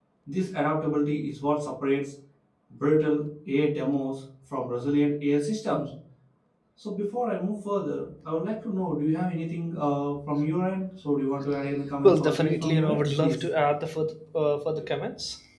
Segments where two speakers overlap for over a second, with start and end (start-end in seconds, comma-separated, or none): 12.0-13.4